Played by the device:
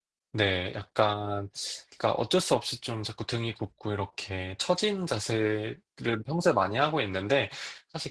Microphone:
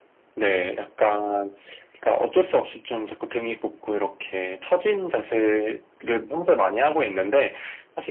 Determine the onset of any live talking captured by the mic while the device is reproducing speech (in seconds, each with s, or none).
none